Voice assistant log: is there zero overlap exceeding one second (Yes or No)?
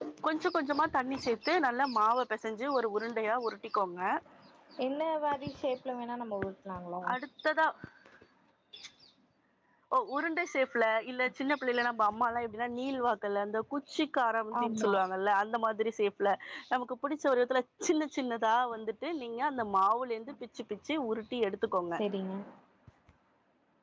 Yes